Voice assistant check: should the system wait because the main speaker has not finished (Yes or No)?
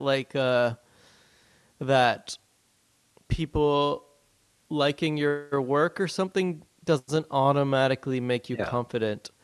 Yes